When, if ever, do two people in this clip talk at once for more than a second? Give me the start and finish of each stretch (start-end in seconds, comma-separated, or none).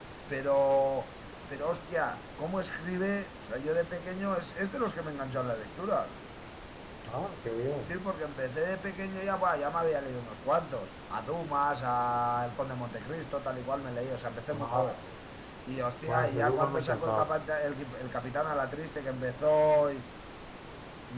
16.1-17.3